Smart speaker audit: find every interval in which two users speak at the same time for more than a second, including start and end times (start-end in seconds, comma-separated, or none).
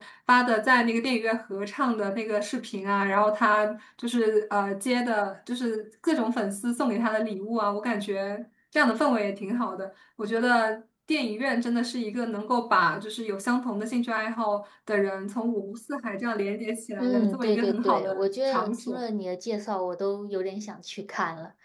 17.0-19.0